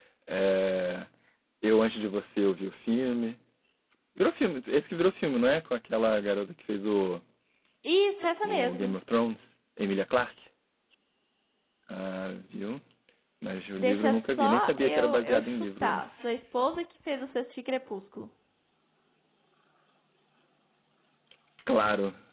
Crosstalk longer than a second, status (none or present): present